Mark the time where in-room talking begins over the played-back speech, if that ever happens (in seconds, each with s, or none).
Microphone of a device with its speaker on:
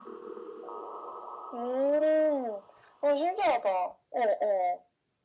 none